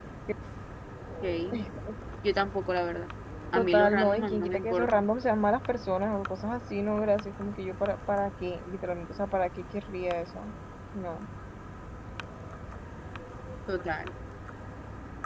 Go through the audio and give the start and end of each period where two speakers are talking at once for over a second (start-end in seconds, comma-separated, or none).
3.5-5.0